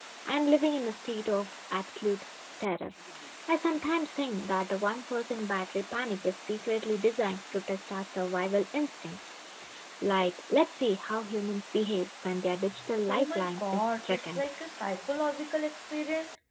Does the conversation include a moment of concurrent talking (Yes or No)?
Yes